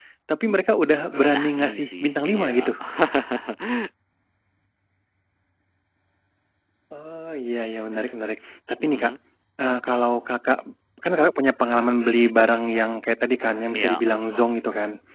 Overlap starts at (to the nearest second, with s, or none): 1 s